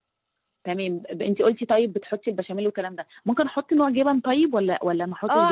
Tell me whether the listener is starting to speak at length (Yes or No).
Yes